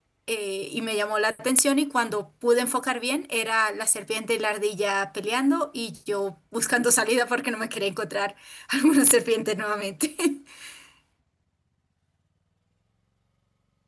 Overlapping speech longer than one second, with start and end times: none

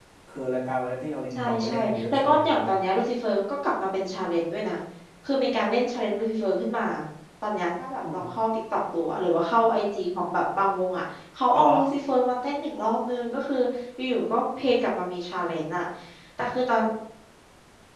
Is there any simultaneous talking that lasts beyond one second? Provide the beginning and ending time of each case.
1.3-2.7

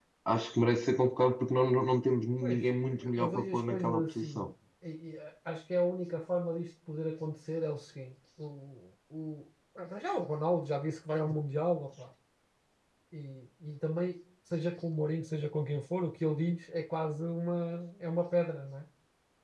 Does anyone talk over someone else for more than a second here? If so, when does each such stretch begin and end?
2.4-4.5

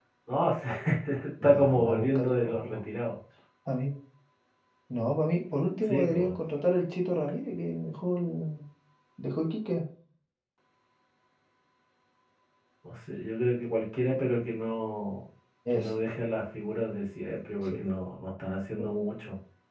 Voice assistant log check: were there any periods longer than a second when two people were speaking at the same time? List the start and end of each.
1.4-2.8

